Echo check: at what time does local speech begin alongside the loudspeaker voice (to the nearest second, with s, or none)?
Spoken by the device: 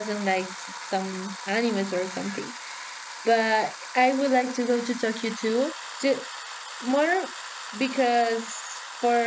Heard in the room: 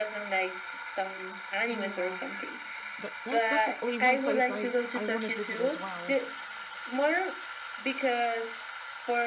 2 s